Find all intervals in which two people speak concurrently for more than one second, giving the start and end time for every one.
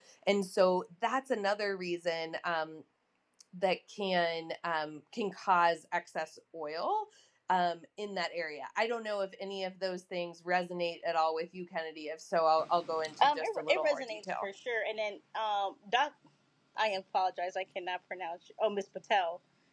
13.2-14.5

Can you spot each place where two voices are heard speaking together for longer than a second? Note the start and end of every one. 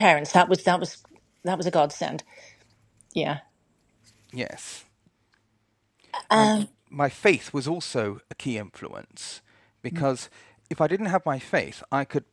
none

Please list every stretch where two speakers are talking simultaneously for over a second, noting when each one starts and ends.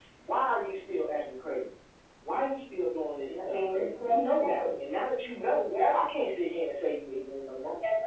3.3-4.7

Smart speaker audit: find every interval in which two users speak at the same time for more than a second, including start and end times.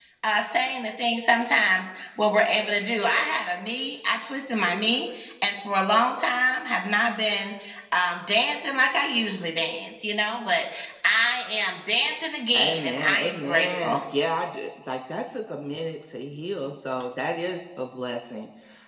12.6-14.0

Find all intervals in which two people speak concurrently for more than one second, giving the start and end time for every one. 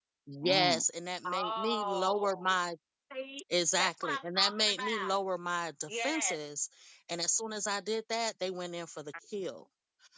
1.2-2.5, 3.8-5.2

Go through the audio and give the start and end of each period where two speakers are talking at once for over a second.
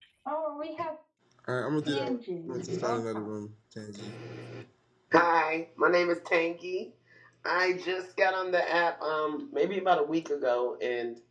1.9-3.3

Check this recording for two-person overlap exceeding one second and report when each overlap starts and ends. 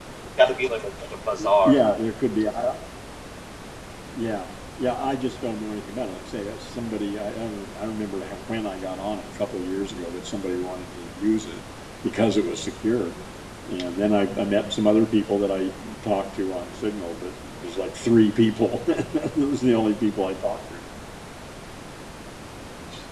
none

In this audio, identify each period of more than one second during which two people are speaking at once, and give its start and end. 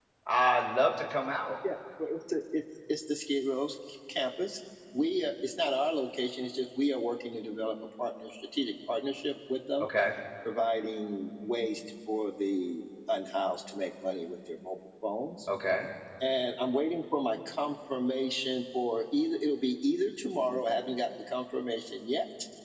none

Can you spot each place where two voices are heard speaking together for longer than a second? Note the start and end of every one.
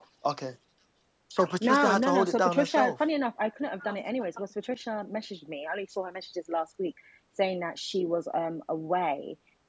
1.6-2.9

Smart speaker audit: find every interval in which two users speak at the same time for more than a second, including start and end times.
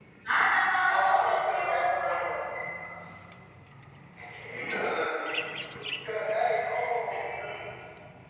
0.9-2.1

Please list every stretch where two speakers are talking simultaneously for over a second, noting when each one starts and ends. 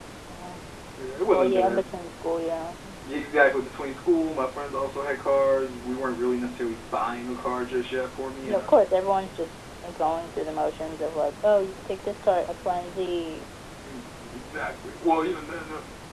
none

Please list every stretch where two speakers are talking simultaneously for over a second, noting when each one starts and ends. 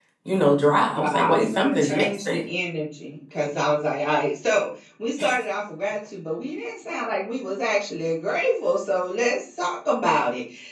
1.0-2.5

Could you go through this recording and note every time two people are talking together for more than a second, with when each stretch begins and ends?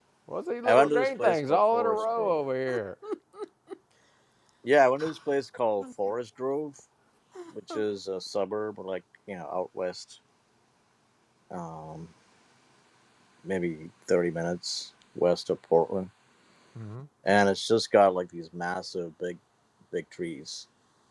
0.7-2.4

